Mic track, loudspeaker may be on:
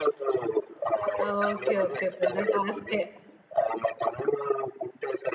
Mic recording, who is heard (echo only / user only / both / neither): both